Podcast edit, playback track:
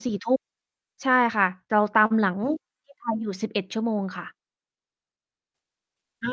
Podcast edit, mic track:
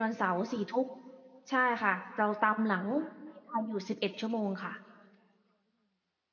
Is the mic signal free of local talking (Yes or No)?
Yes